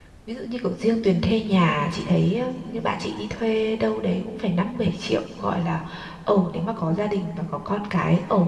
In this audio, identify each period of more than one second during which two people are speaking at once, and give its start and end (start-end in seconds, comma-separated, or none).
none